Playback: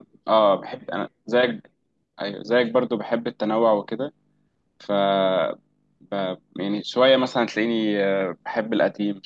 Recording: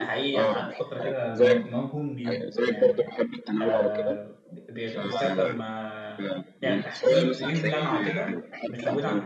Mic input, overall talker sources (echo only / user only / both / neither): both